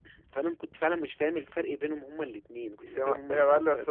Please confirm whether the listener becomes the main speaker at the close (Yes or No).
Yes